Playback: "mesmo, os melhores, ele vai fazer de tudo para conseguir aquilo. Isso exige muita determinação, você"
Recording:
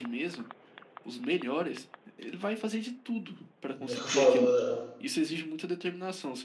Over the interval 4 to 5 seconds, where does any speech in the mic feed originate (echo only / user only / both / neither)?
both